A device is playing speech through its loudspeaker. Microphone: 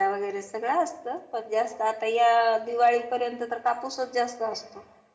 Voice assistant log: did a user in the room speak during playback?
Yes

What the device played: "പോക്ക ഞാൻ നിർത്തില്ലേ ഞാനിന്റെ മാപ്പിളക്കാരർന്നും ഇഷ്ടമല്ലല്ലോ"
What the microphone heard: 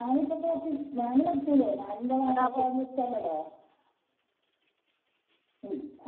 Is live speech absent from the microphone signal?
No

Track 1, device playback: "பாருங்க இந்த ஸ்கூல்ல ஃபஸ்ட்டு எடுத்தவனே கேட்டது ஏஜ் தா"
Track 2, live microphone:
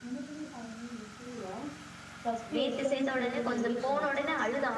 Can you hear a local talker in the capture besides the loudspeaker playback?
Yes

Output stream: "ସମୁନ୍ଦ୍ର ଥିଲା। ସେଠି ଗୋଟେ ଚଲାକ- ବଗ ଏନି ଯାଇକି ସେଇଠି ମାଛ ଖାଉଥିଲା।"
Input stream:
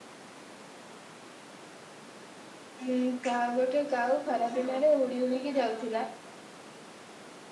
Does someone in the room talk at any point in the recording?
Yes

